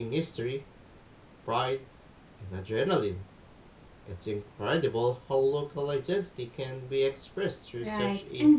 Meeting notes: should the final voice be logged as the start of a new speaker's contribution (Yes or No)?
Yes